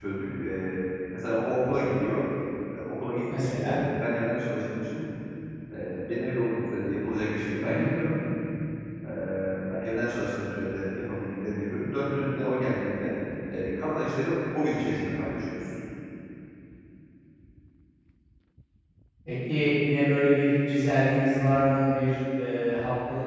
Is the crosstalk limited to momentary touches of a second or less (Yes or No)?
Yes